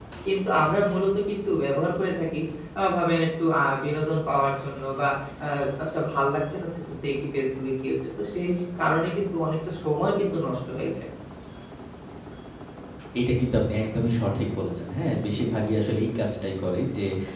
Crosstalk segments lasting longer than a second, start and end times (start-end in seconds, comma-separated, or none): none